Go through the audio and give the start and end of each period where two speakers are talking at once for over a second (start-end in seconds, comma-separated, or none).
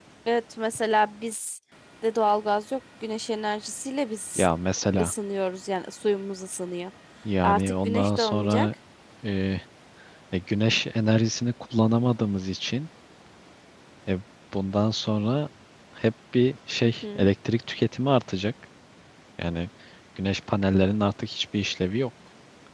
7.4-8.7